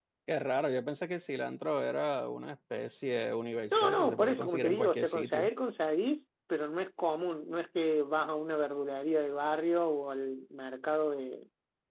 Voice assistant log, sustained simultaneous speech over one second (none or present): present